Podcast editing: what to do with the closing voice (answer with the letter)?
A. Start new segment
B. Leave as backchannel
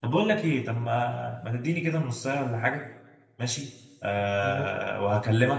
B